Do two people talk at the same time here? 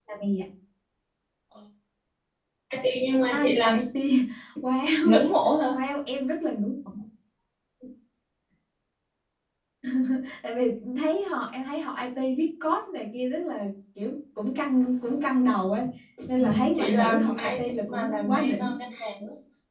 Yes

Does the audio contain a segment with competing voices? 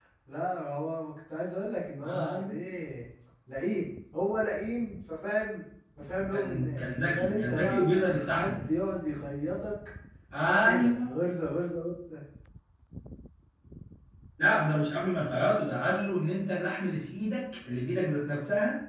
Yes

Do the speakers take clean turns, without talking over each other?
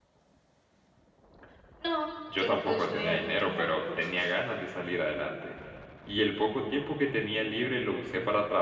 No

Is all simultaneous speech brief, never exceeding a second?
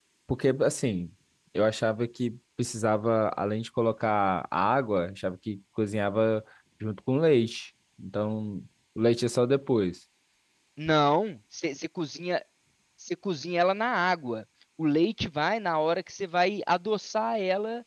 Yes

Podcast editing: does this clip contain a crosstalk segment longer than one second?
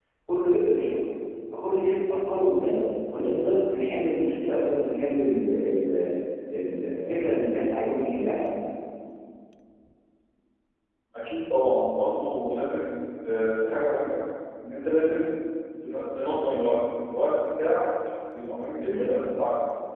No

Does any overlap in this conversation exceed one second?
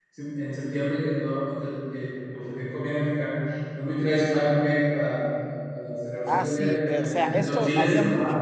Yes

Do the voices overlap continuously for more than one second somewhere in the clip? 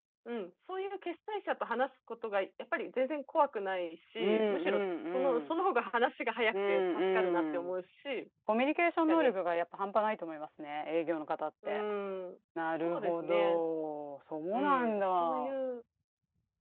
Yes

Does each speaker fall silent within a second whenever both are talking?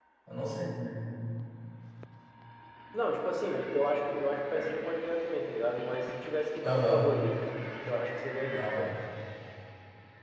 Yes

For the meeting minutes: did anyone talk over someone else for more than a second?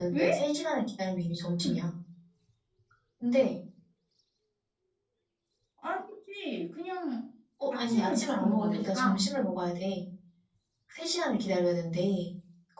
Yes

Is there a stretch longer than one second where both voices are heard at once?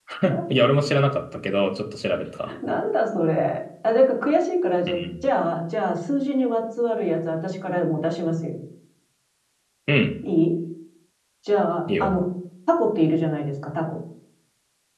No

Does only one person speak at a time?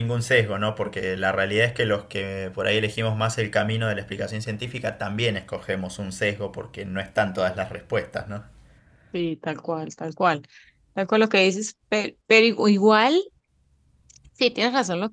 Yes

